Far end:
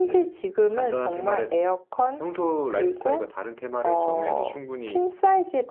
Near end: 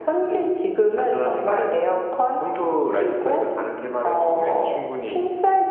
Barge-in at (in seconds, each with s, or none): none